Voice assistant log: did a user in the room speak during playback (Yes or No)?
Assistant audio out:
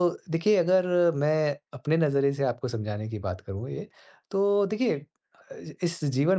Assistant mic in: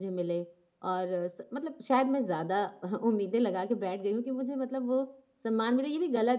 Yes